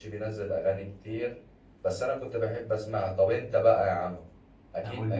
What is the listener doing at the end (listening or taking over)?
listening